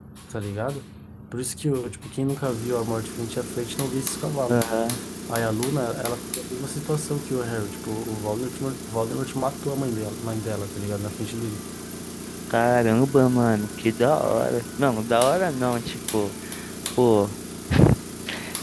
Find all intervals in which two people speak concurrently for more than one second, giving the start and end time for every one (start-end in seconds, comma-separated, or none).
none